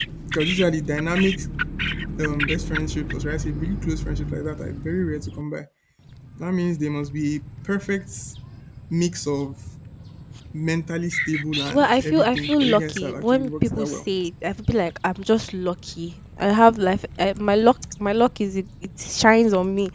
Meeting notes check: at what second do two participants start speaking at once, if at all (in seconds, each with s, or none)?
11.7 s